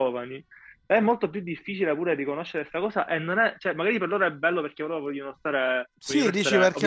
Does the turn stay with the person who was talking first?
No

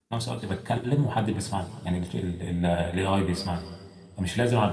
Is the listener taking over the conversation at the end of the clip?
No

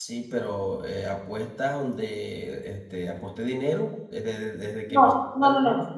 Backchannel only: No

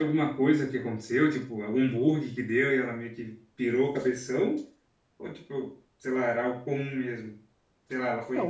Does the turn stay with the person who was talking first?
No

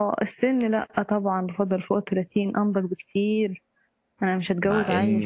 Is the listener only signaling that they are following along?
No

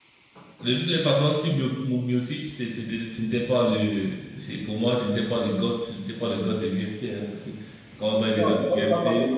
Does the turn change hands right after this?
Yes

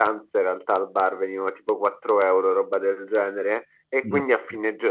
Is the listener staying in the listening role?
Yes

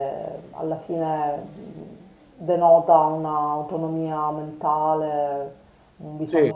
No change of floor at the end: Yes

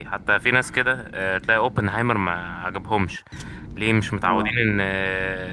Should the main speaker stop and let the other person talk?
No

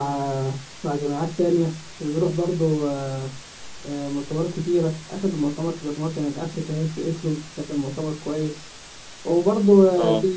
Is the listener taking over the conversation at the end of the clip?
No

